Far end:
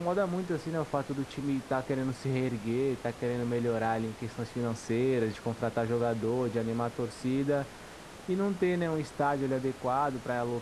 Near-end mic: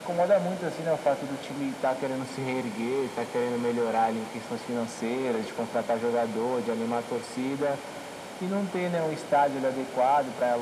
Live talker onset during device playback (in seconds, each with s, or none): none